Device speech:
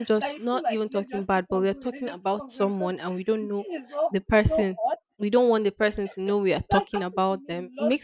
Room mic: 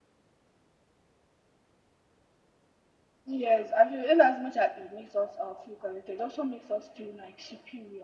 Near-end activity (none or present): present